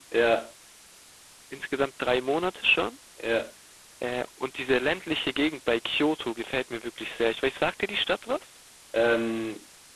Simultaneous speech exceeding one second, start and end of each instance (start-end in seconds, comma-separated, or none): none